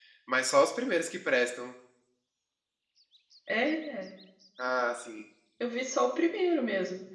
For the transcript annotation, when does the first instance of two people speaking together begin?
none

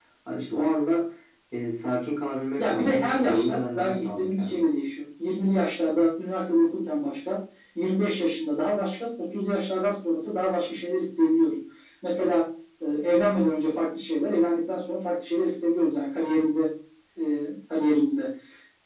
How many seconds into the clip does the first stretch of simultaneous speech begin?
2.6 s

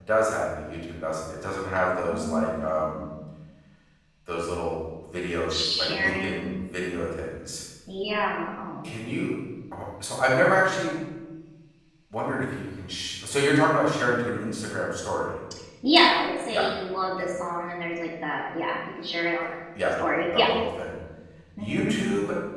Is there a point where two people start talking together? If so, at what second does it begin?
1.7 s

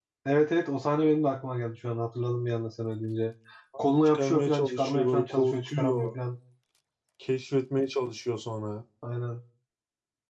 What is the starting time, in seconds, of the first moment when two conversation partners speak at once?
3.8 s

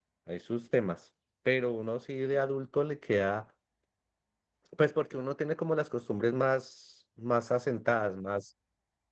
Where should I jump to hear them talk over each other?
none

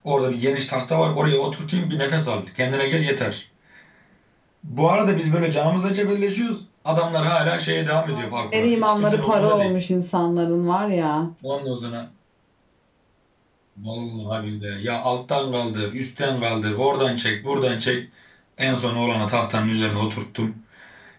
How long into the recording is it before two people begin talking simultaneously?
7.9 s

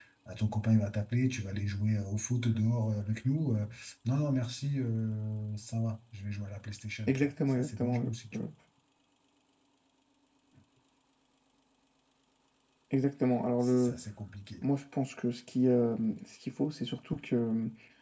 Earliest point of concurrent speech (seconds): 7.1 s

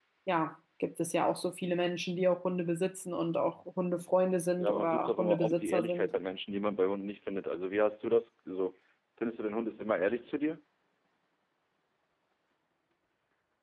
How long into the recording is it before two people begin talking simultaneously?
4.6 s

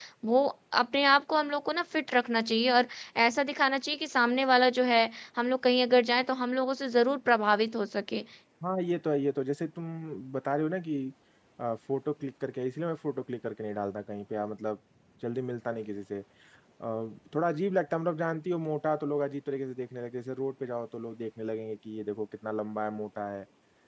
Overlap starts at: none

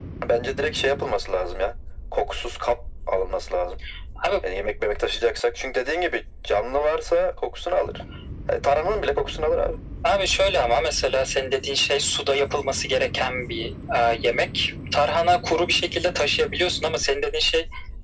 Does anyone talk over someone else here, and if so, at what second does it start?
none

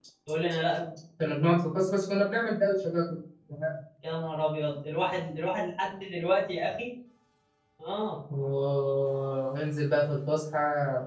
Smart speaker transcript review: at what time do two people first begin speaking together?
none

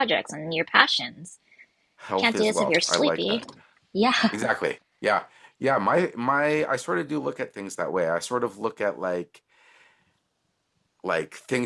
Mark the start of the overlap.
2.2 s

